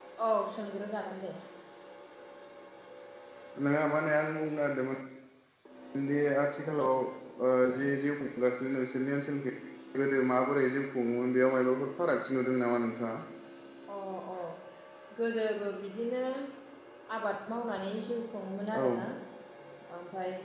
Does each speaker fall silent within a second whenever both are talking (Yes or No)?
Yes